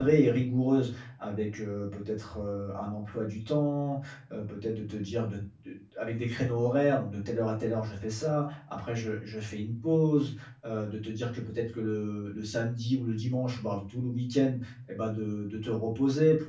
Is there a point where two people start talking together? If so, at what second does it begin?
none

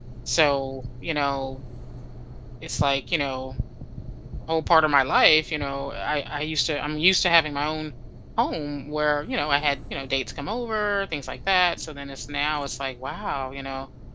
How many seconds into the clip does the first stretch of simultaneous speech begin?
none

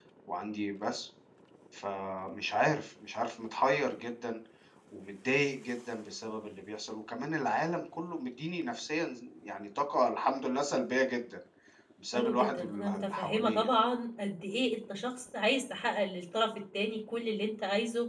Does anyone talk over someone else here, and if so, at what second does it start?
12.1 s

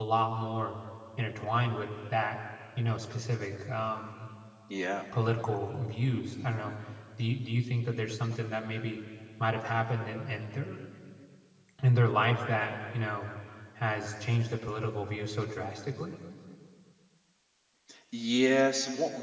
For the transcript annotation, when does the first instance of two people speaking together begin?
none

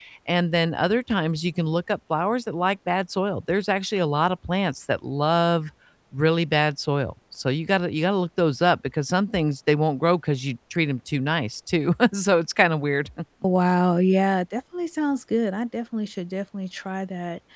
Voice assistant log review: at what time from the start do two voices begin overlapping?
none

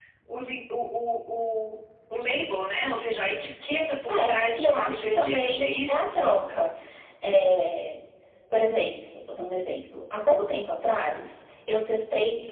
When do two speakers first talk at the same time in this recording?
4.1 s

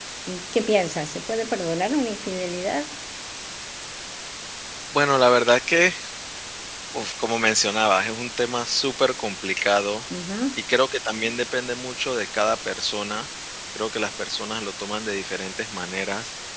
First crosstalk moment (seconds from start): none

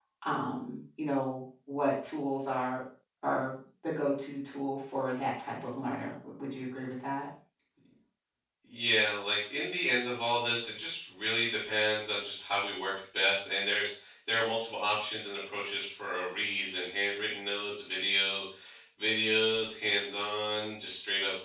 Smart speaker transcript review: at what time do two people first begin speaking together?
none

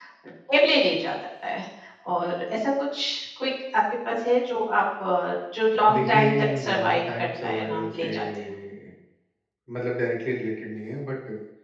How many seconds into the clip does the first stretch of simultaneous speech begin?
5.9 s

